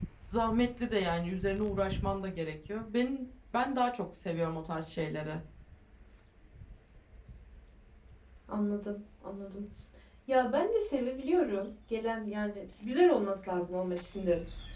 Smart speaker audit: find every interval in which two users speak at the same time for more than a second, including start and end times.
none

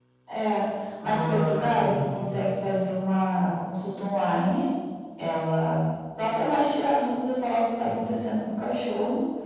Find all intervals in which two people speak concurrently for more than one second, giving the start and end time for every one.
1.0-2.3

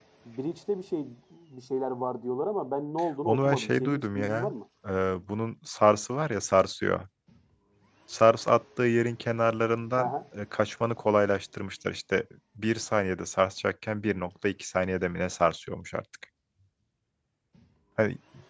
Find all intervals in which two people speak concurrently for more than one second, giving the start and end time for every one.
3.2-4.5

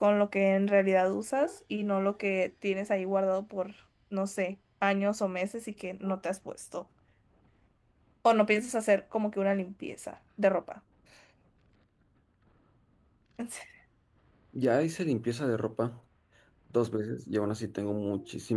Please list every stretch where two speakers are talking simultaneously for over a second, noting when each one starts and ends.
none

